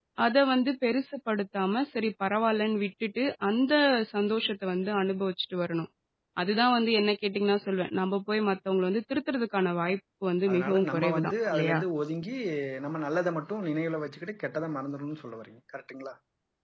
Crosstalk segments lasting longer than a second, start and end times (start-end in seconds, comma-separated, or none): 10.5-11.8